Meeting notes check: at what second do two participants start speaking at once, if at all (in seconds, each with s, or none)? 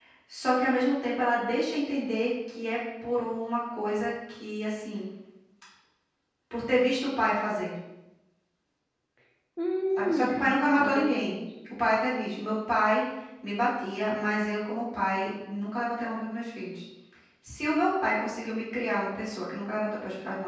10.0 s